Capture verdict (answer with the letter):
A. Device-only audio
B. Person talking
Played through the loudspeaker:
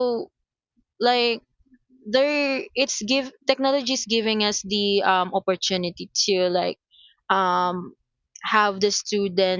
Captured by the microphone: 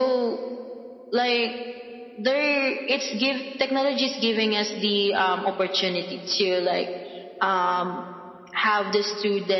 A